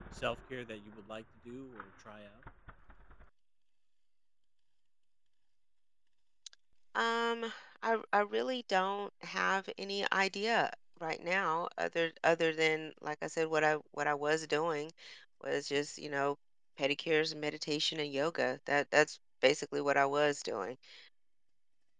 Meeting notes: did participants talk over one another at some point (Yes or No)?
No